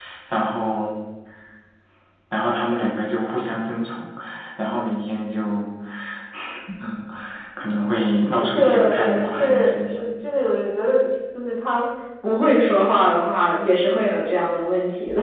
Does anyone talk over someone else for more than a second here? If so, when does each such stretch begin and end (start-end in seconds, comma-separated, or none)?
8.5-10.1